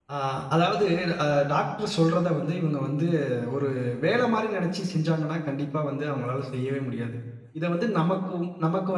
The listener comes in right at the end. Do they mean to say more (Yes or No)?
No